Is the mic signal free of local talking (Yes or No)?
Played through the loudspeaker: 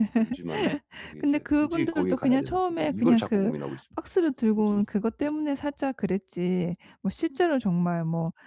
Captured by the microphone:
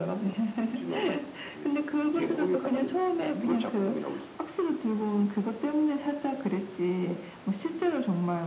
No